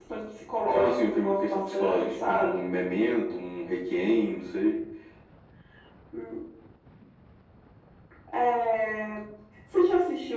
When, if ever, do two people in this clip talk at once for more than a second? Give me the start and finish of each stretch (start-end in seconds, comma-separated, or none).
0.7-2.6